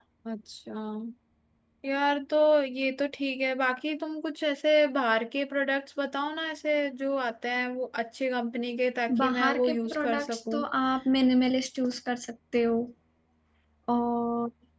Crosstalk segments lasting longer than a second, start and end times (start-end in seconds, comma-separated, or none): 9.2-10.6